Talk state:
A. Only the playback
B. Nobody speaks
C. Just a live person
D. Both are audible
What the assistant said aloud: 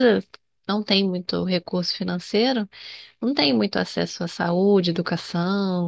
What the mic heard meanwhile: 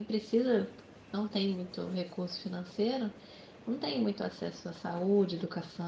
A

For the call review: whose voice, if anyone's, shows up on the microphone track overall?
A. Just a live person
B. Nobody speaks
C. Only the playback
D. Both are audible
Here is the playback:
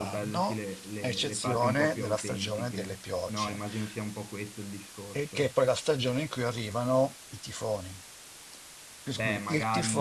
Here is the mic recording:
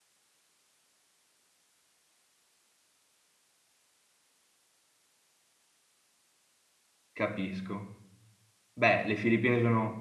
A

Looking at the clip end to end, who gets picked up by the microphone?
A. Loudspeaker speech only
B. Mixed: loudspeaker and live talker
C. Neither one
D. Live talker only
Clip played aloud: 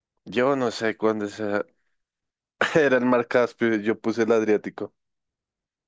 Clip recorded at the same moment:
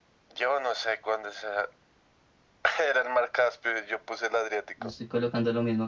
B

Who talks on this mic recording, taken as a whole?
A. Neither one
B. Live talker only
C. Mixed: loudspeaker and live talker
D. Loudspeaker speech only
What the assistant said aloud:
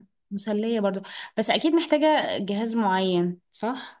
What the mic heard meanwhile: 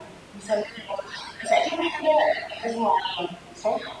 D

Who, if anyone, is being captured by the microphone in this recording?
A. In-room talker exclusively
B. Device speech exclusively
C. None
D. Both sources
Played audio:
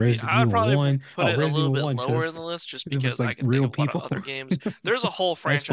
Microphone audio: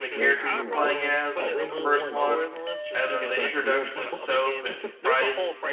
D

